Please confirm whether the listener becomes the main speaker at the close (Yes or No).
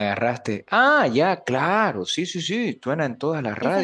Yes